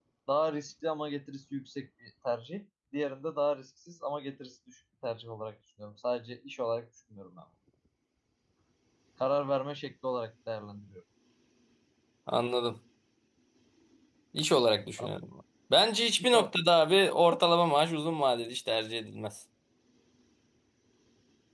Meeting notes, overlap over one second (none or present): none